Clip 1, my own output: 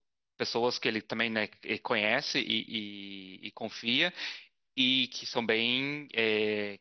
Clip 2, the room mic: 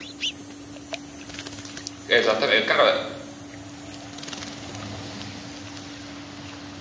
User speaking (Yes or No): Yes